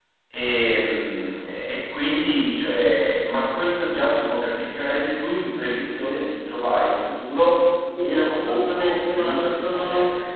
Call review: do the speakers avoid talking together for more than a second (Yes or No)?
No